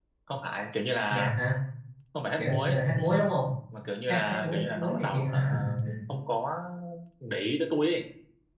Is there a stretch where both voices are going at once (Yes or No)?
Yes